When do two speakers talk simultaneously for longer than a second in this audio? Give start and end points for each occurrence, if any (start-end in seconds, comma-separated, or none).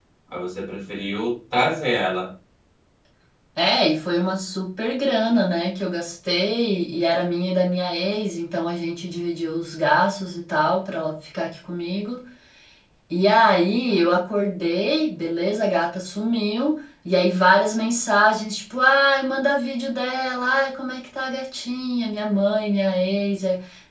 none